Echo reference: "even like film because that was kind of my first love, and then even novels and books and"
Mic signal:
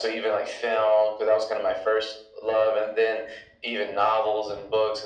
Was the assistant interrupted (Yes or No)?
No